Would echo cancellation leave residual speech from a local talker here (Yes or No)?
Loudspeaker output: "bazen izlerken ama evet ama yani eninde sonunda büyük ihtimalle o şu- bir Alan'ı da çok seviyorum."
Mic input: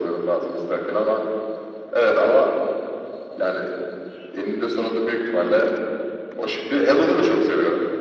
No